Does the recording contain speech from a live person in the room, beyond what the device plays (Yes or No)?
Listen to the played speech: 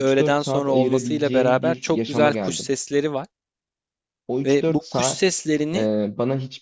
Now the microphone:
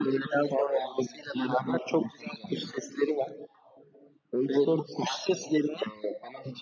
No